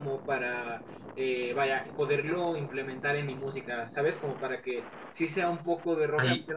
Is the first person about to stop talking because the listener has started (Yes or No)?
No